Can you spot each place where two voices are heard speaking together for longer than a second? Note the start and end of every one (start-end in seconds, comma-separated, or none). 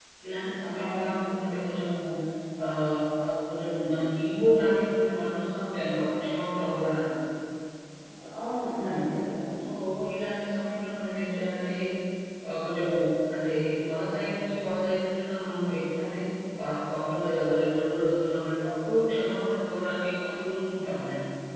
none